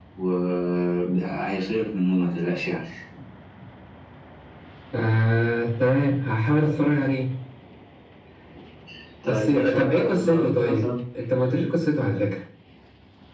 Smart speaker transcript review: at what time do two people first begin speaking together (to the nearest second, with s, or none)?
9 s